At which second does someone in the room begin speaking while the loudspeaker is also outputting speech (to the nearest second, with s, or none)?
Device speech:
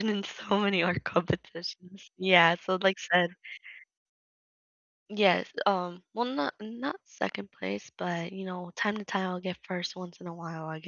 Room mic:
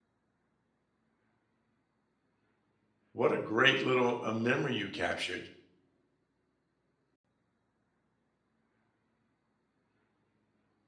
3 s